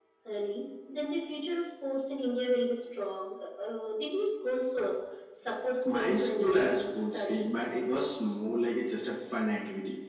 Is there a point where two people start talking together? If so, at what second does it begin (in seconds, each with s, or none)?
5.9 s